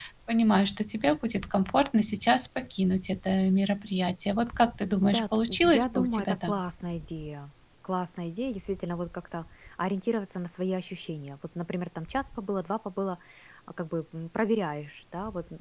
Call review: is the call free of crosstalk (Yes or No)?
No